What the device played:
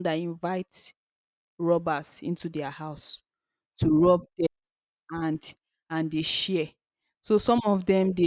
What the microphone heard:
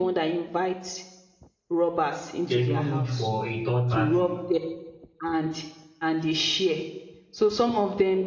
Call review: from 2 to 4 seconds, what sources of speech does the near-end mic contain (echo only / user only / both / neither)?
both